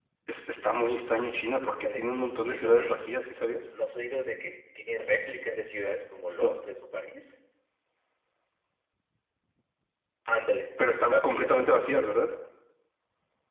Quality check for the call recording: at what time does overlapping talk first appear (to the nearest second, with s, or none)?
2 s